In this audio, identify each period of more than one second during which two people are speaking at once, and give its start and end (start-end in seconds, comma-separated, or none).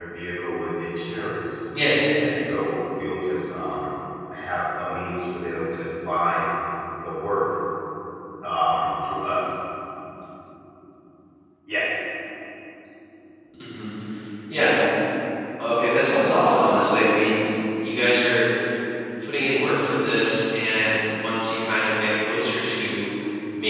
none